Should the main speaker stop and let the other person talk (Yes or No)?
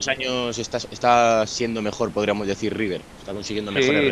Yes